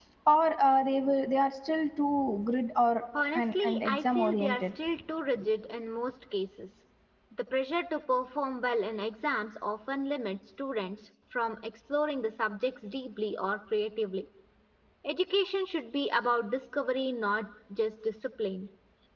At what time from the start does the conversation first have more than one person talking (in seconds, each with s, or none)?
3.1 s